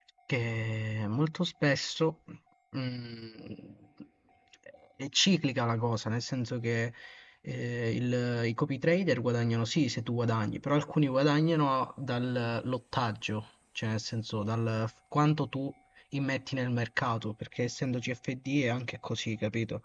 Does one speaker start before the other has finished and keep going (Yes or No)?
No